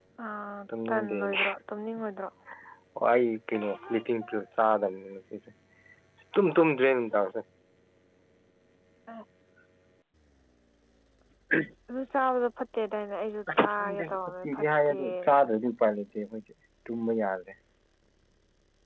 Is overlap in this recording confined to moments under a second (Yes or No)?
No